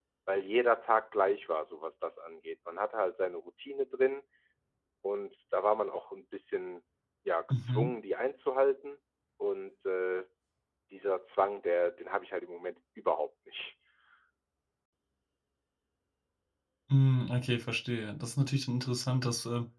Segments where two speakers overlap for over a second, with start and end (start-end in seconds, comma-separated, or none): none